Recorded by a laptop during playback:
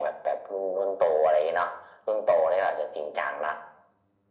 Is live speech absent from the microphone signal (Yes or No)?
Yes